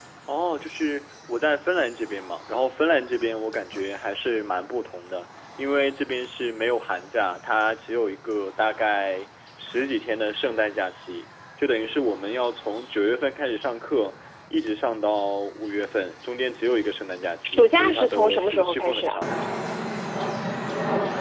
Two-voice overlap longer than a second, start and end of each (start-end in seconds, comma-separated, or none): 17.4-19.2